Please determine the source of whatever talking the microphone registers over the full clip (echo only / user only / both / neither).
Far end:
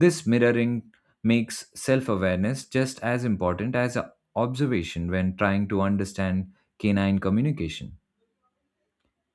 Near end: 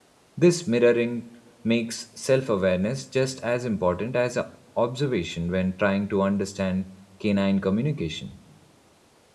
echo only